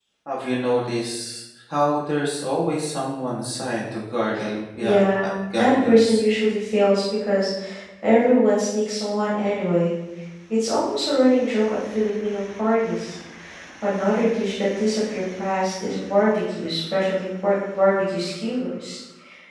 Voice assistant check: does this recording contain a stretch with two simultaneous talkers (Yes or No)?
Yes